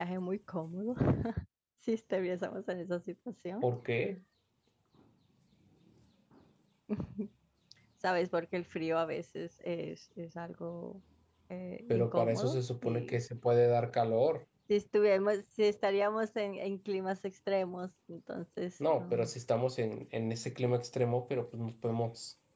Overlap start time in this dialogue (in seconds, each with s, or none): 11.9 s